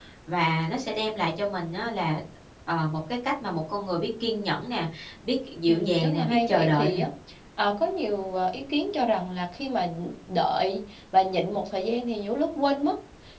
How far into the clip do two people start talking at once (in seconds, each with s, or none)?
5.7 s